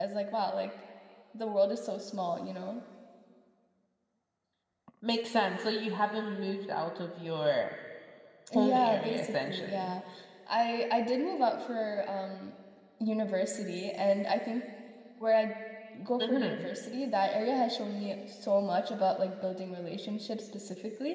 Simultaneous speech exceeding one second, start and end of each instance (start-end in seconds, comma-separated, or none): 8.6-9.9